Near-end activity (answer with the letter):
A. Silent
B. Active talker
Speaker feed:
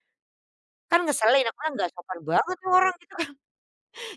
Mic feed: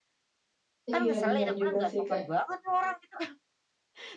B